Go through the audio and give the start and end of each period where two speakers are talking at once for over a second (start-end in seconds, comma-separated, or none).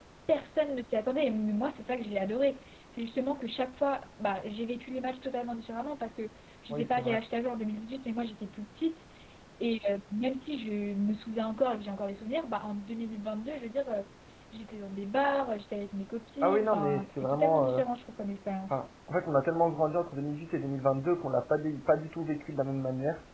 16.4-17.8